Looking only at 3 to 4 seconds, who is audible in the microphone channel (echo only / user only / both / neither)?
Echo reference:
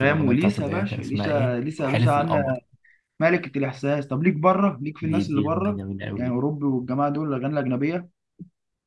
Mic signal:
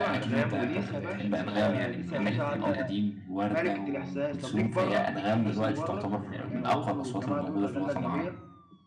both